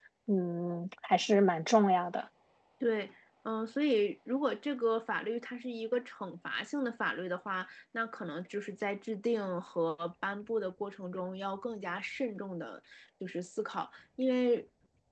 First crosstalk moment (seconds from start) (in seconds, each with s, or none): none